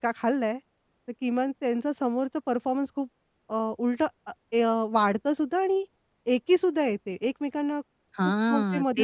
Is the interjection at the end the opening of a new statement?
Yes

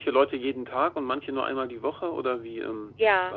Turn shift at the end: Yes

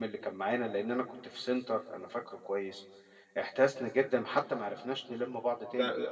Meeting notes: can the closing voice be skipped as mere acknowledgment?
No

